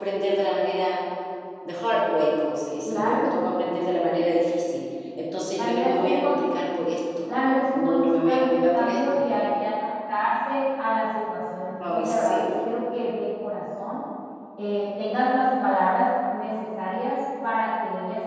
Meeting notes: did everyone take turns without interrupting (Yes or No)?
No